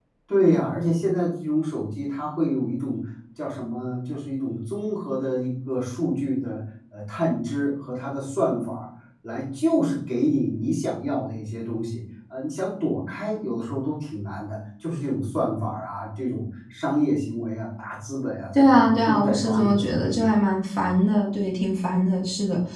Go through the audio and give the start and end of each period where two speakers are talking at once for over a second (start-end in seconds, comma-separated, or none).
18.6-20.4